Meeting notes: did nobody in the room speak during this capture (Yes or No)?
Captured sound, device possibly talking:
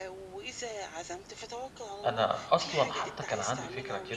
No